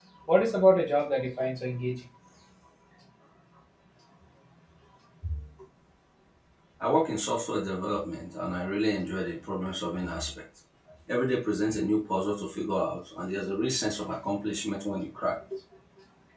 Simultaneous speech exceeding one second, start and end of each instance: none

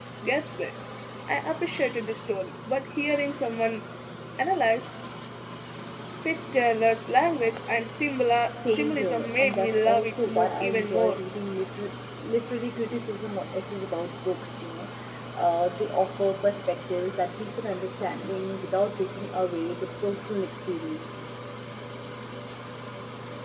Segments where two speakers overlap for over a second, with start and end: 8.5-11.2

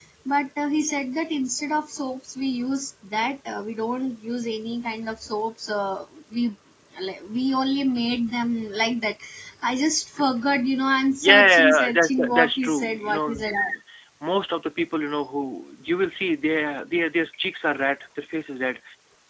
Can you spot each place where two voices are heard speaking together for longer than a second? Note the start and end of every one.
11.2-13.4

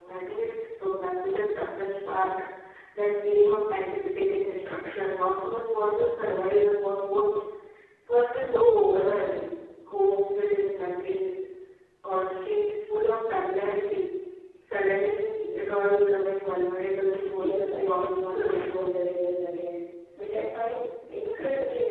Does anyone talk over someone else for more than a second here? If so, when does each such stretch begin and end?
17.4-18.9

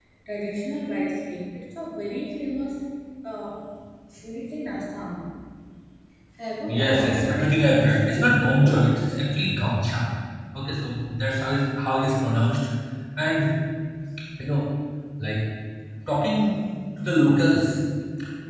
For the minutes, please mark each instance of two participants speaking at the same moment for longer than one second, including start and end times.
6.7-8.8

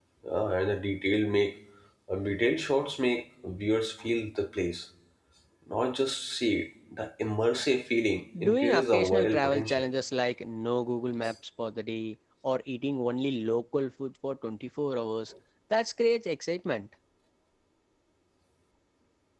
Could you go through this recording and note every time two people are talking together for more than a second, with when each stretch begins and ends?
8.4-9.8

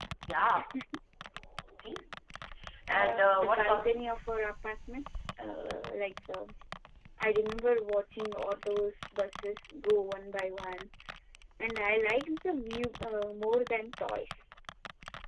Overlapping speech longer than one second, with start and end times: 2.9-4.1

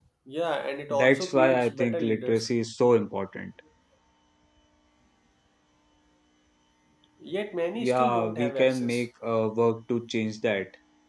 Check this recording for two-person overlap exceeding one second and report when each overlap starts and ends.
0.9-2.5, 7.8-9.1

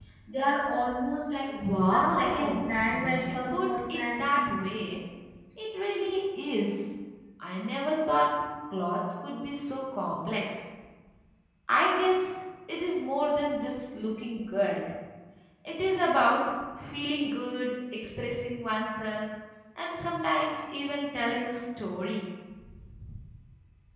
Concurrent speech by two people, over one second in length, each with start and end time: 1.9-4.5

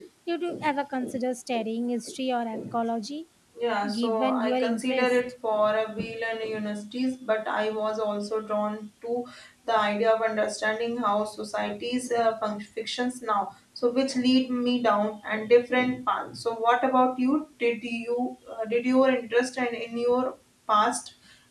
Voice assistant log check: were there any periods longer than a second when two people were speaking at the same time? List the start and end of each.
3.9-5.2

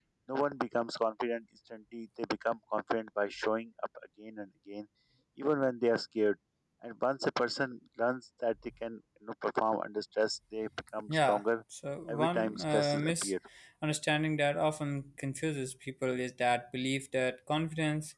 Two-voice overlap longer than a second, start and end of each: 12.1-13.3

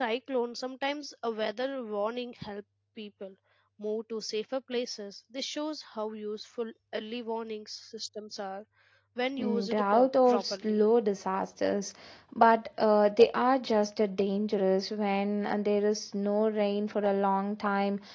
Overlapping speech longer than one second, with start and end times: 9.4-10.8

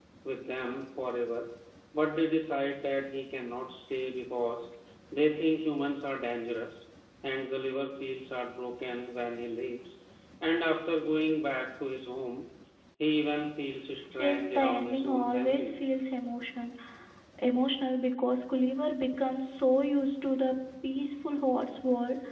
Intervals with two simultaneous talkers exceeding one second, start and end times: 14.2-15.7

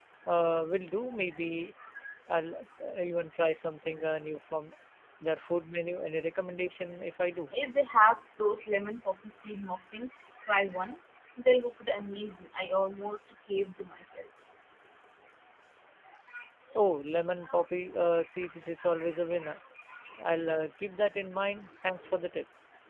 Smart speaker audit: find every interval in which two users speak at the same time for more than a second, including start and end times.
none

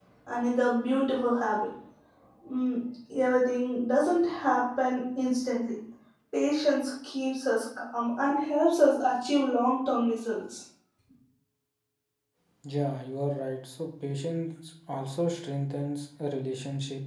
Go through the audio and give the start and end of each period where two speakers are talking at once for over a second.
none

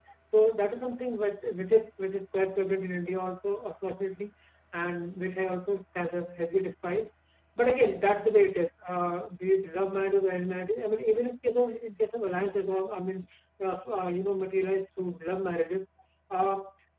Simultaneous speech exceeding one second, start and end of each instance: none

